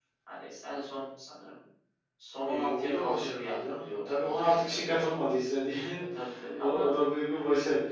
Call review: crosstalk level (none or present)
present